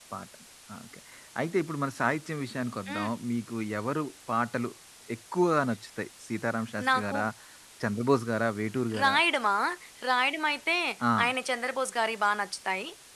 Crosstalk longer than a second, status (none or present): none